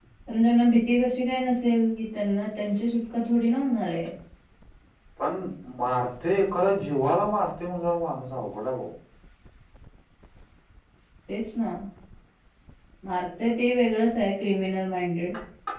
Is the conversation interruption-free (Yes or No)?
Yes